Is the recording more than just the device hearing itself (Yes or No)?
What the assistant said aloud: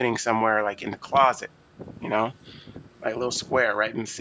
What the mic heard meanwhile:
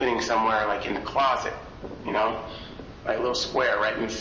No